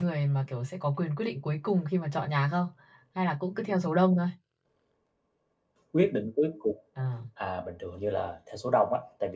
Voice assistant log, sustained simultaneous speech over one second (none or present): none